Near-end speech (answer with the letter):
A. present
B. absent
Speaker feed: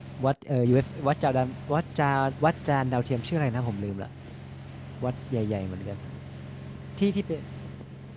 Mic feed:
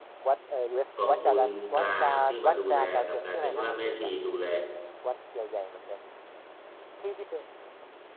A